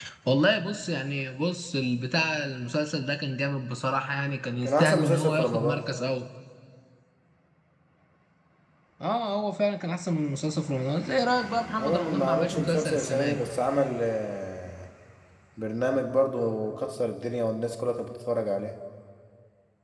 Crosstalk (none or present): present